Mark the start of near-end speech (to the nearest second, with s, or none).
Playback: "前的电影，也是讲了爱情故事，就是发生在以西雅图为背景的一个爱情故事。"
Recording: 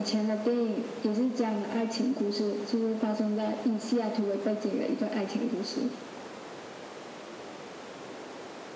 none